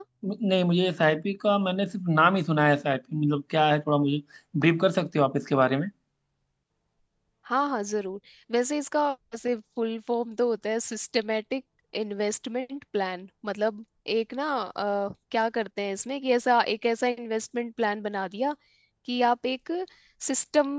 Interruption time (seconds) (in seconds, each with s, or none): none